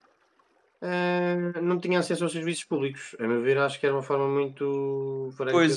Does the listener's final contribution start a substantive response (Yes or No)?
Yes